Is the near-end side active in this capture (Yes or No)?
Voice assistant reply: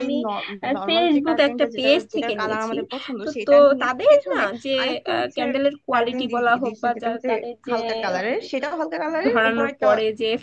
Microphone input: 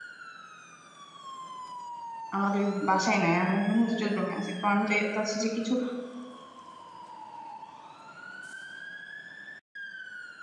Yes